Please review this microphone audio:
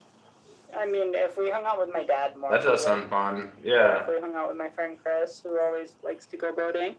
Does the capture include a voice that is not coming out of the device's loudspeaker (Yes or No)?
Yes